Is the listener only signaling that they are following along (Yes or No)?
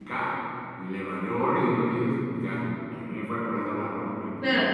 No